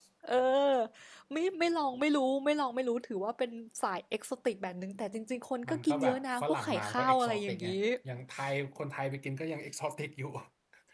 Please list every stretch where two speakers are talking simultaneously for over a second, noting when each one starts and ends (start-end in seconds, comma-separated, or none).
5.7-7.7